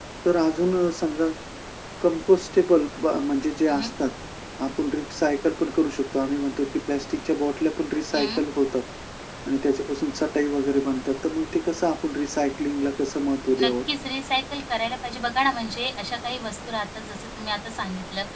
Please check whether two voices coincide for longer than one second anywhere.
No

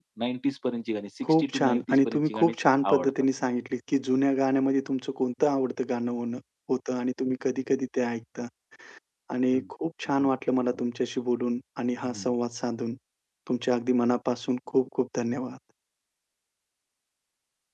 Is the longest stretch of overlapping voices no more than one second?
No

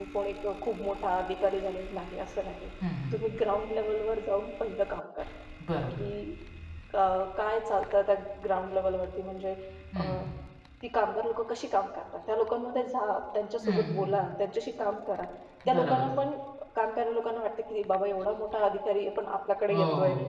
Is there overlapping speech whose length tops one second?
No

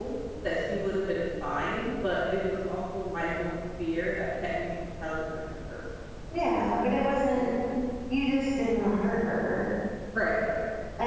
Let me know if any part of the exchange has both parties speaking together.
No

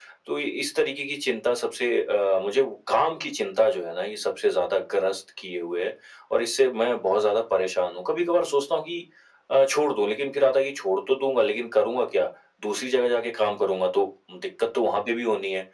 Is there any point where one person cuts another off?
No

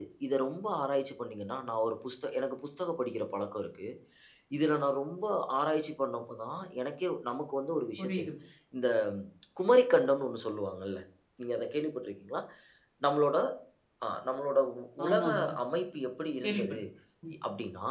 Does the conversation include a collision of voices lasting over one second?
No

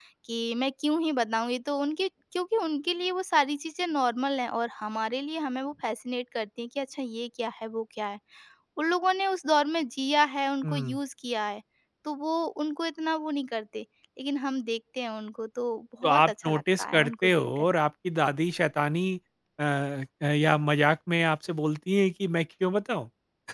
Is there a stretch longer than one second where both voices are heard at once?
Yes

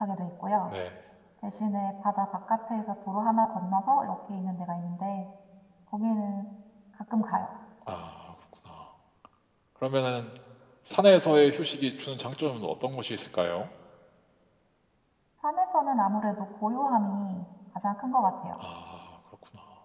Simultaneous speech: No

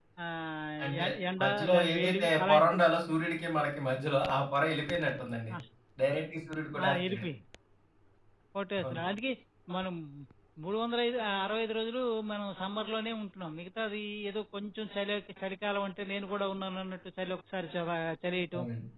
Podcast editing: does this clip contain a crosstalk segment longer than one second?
Yes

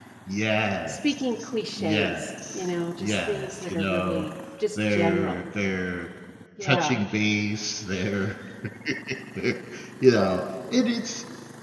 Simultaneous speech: Yes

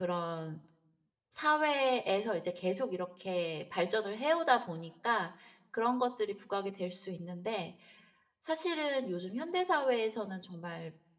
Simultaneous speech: No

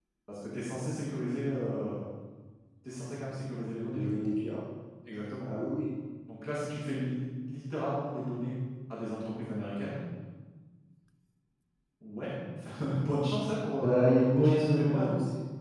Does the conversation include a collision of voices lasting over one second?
Yes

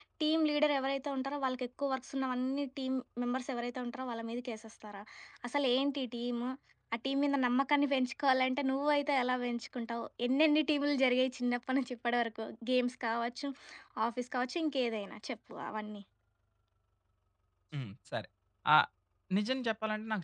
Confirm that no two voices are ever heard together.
Yes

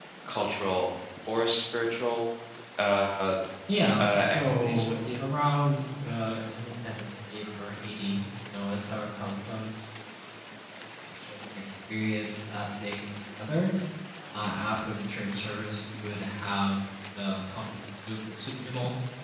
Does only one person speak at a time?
No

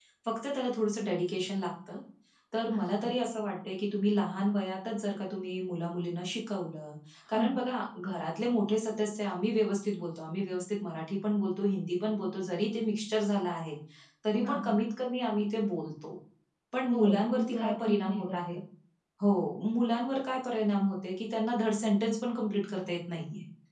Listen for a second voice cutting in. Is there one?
Yes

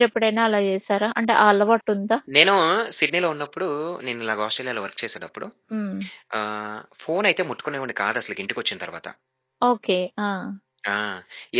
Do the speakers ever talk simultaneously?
No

